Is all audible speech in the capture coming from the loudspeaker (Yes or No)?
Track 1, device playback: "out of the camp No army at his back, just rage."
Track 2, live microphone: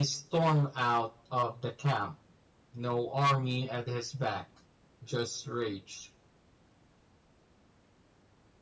Yes